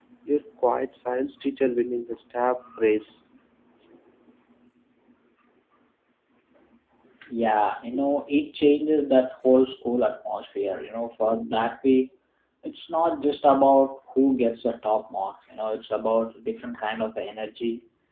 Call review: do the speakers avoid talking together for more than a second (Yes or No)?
Yes